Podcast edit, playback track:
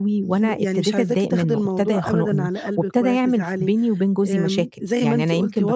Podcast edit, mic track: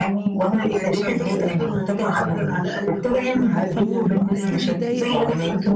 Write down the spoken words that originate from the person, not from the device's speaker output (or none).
وعارفة الموضوع أكيد يضايق